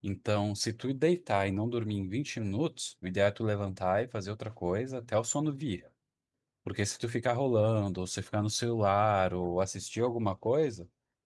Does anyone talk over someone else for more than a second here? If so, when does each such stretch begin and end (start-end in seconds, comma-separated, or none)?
none